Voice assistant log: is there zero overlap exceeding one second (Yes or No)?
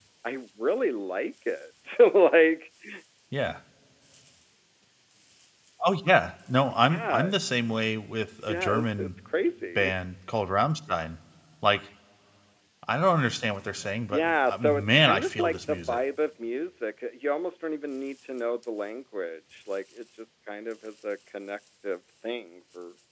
No